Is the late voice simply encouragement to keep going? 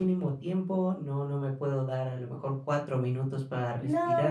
No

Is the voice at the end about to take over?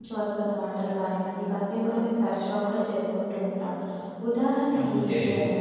No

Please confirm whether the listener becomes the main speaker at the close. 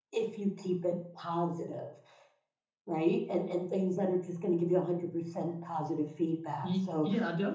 Yes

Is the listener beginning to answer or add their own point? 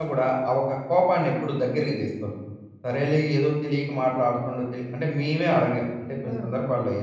No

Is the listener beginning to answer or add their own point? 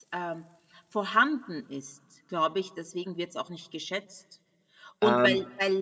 No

